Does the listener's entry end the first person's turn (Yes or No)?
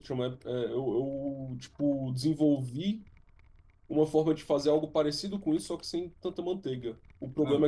No